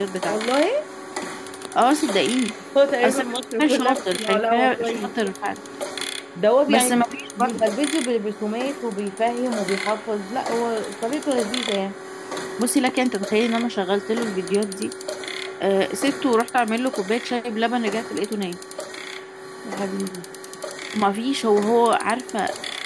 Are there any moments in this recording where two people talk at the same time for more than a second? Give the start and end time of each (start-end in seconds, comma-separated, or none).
3.6-5.1